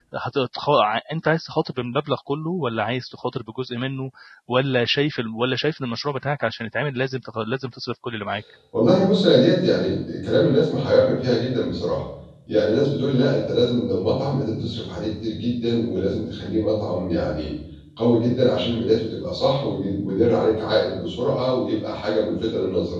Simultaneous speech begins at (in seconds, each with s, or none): none